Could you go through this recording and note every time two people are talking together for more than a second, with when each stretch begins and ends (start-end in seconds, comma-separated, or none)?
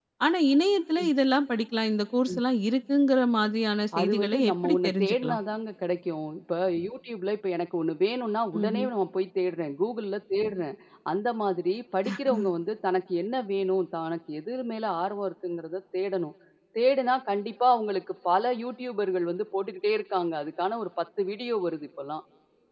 4.0-5.4